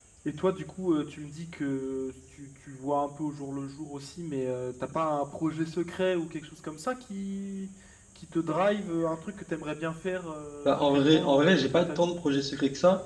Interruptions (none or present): present